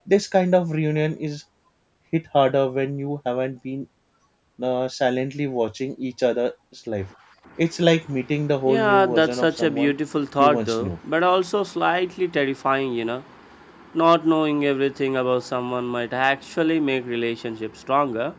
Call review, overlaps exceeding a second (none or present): present